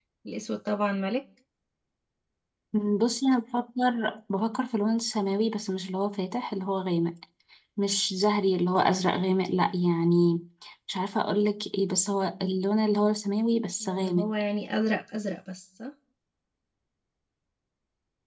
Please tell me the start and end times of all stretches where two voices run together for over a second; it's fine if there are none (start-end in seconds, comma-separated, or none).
none